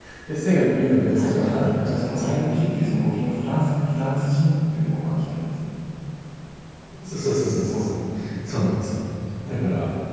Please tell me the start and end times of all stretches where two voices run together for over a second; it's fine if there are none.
1.1-2.3

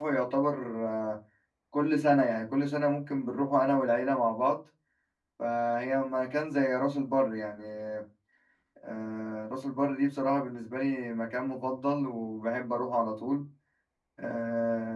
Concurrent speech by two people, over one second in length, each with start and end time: none

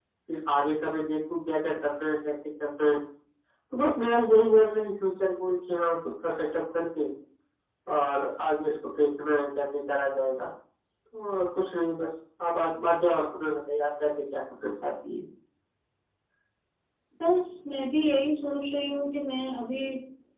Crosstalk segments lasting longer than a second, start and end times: none

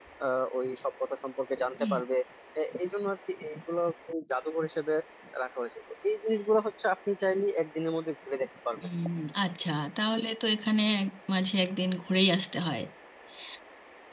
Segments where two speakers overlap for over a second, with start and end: none

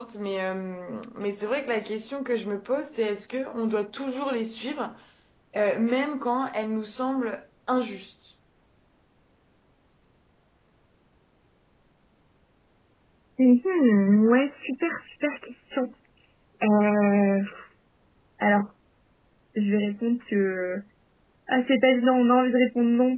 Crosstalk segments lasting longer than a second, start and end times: none

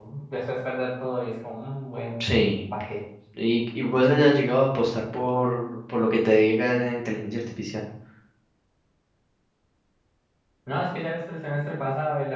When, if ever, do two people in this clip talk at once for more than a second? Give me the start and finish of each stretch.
none

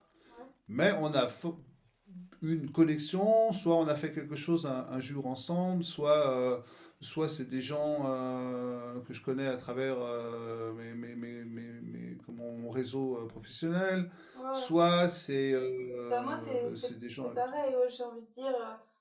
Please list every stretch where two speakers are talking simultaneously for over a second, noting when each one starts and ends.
16.1-17.3

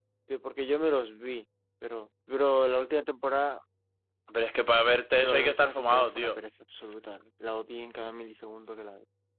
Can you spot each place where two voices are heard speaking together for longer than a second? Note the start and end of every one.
5.2-6.4

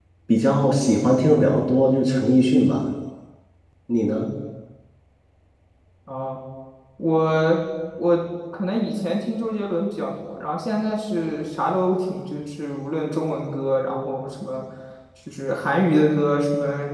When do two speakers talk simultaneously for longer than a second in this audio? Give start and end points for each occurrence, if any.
none

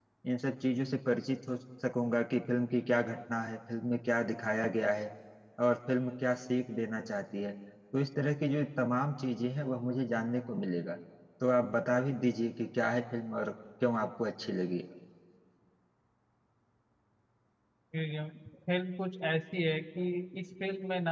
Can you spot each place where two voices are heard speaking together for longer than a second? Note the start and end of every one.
none

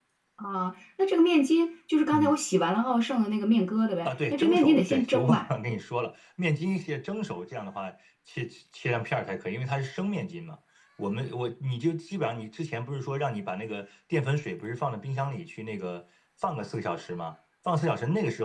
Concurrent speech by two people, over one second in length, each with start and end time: 4.0-5.5

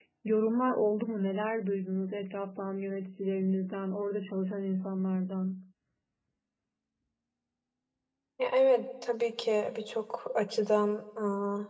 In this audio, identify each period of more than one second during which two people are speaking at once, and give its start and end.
none

